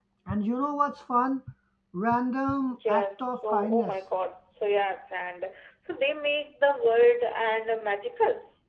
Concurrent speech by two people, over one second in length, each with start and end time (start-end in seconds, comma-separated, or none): 2.7-4.0